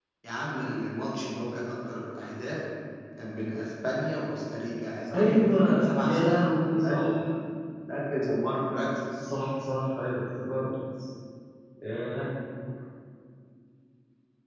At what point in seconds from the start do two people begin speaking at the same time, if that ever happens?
5 s

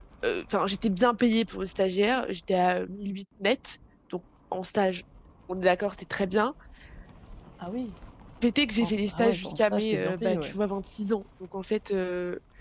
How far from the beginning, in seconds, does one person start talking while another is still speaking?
9 s

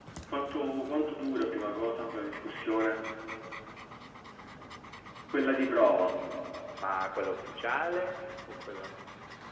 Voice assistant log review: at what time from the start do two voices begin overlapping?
none

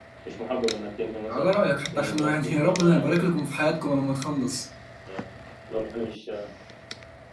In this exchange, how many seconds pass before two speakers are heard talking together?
1 s

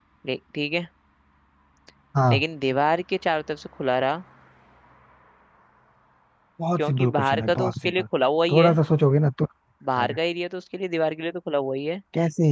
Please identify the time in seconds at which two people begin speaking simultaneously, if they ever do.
7 s

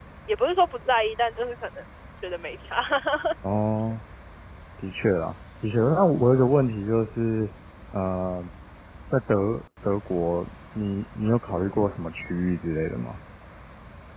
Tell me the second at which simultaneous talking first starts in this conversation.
none

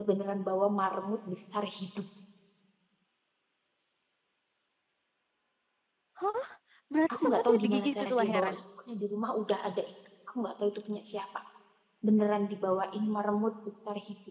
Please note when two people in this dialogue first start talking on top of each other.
7 s

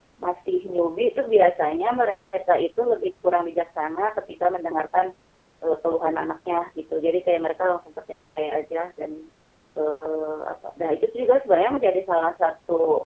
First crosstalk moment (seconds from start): none

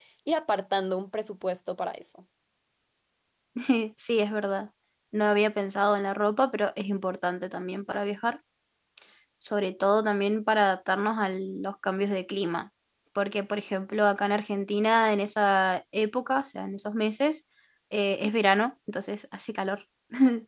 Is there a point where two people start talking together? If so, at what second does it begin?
none

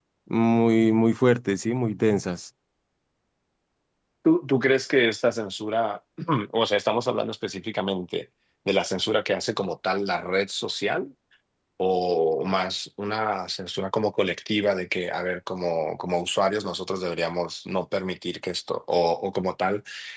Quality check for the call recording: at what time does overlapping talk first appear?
none

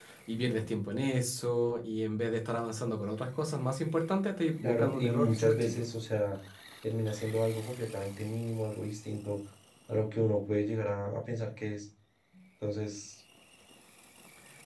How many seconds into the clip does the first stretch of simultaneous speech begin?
5 s

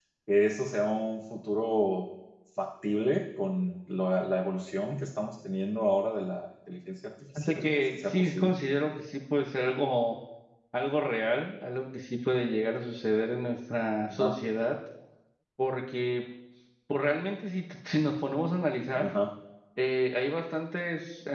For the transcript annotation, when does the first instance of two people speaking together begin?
7 s

